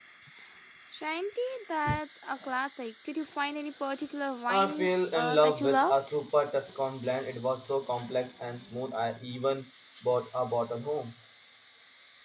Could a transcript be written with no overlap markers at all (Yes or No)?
No